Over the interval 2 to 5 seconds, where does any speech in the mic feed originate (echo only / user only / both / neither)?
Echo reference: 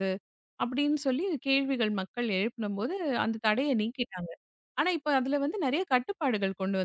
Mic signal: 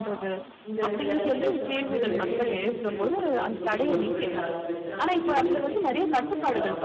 both